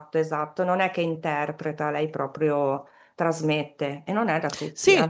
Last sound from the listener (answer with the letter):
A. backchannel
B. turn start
B